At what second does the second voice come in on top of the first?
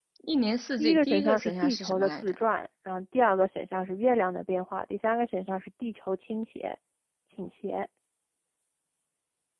0.8 s

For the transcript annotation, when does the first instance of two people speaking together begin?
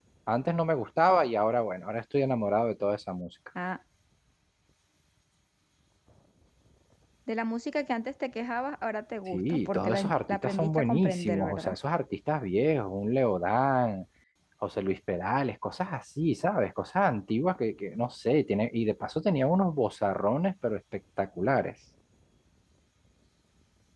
9.3 s

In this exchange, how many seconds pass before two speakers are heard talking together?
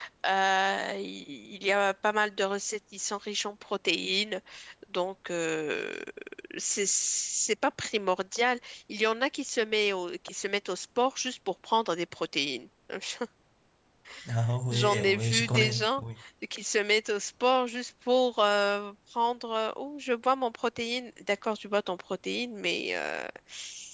14.7 s

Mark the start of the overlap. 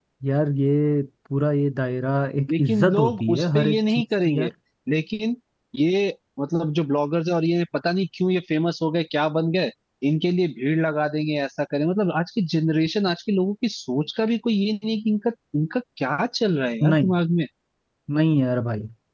2.5 s

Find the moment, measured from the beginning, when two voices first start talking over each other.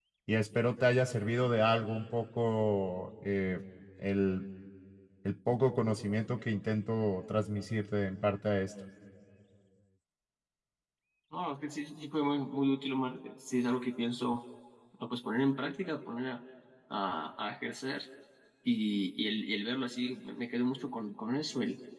none

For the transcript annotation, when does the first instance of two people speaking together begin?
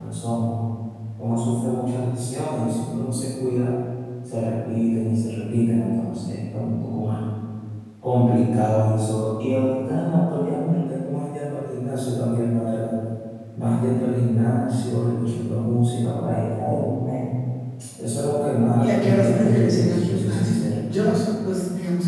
18.8 s

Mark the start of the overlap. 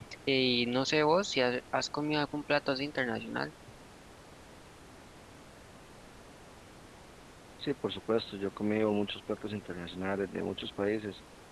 none

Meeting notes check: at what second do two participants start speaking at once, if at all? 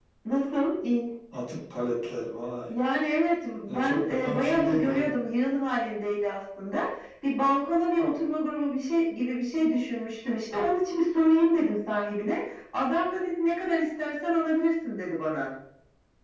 3.7 s

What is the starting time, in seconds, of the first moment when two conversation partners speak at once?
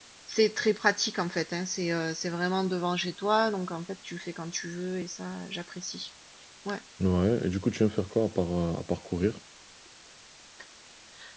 none

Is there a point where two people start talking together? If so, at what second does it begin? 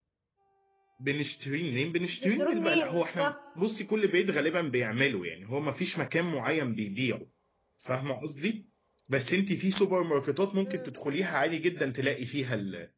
2.1 s

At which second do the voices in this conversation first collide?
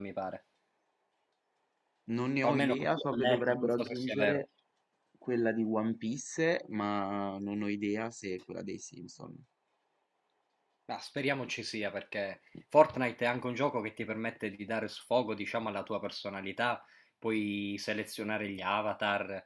2.4 s

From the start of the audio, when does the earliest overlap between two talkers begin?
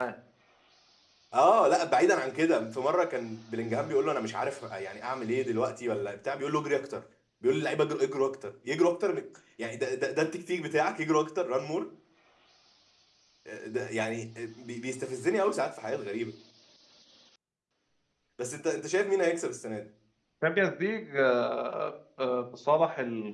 none

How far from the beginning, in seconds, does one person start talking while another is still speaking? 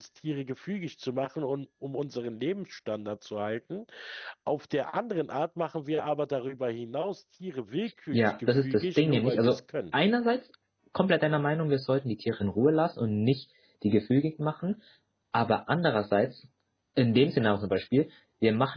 8.1 s

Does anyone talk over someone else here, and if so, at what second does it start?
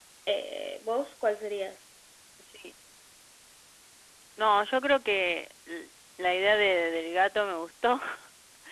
none

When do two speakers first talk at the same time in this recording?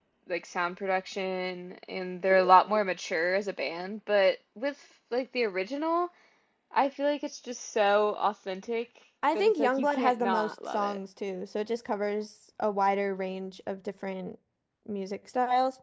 9.2 s

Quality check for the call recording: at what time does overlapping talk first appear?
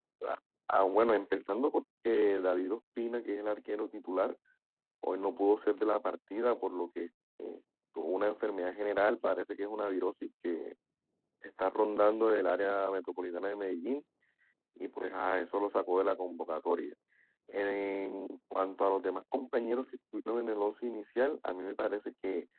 none

